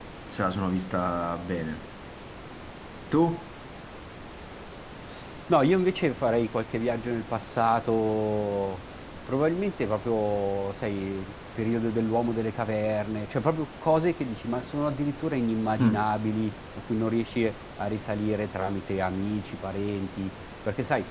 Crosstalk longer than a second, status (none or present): none